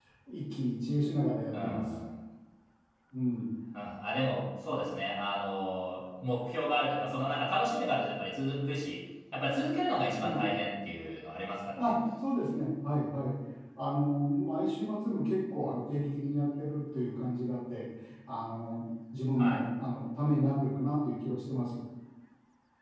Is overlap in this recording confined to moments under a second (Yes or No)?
Yes